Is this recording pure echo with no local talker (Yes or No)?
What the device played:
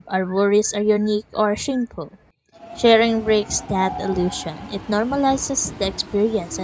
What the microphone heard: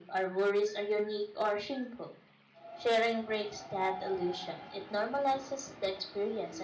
Yes